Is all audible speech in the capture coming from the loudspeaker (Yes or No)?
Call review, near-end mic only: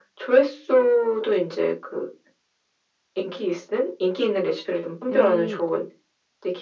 No